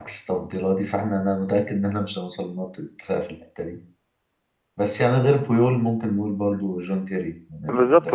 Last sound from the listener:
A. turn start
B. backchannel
A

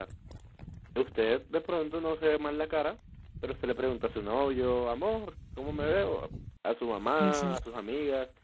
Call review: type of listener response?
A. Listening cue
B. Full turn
A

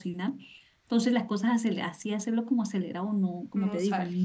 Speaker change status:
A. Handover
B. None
B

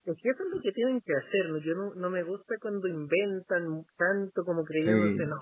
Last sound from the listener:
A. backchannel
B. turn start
A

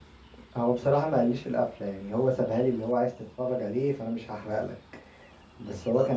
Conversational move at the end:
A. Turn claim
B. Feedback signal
B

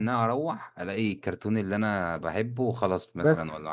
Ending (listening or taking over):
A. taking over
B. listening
A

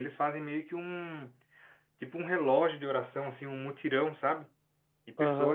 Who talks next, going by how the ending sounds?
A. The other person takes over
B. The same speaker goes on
A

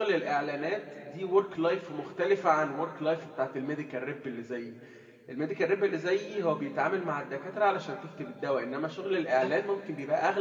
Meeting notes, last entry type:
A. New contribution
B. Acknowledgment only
B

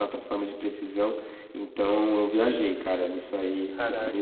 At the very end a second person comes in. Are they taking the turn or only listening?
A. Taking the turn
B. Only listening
B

